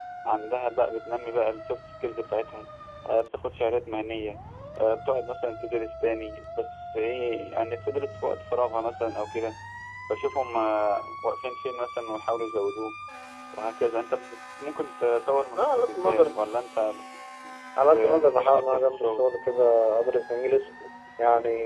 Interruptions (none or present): present